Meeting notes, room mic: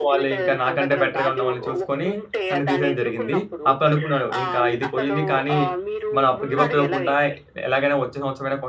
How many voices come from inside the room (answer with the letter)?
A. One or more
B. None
A